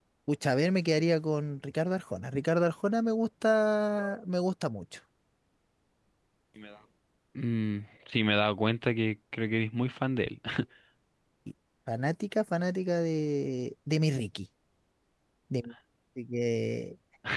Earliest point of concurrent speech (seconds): none

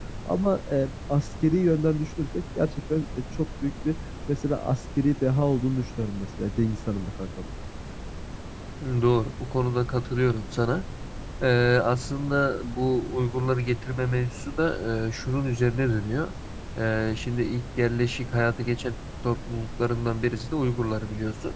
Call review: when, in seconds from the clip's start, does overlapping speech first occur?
none

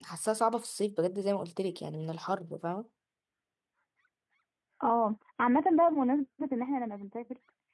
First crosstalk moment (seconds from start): none

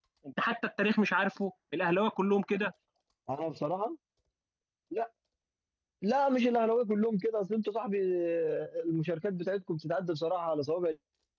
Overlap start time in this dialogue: none

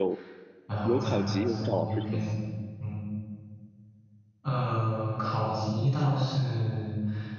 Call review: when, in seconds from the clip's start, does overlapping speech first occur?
0.8 s

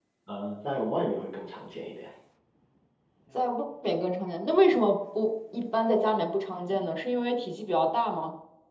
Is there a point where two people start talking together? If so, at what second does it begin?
none

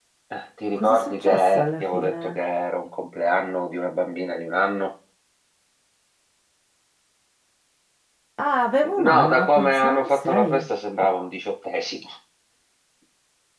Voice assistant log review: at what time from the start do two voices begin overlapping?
0.8 s

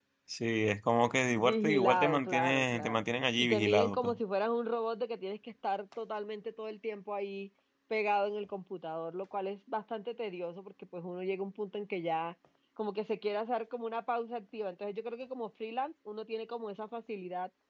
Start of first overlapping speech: 1.4 s

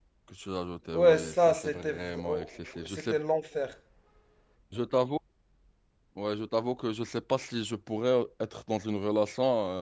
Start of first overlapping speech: 0.9 s

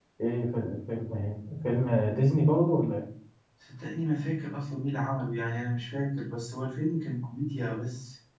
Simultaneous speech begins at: none

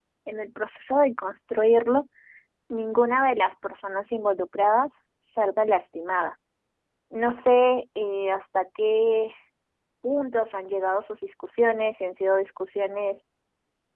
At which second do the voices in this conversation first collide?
none

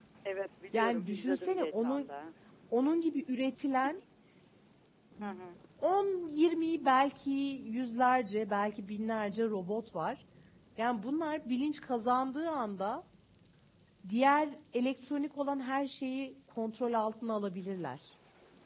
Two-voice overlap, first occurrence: 0.7 s

